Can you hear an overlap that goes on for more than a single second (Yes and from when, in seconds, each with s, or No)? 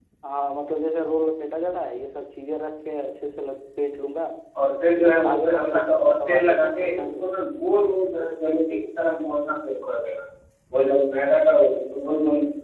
Yes, from 5.0 s